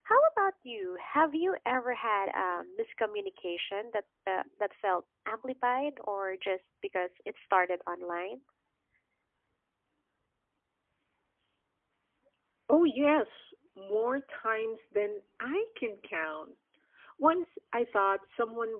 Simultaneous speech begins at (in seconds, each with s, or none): none